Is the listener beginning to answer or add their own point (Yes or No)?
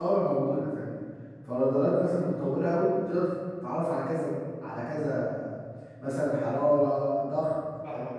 Yes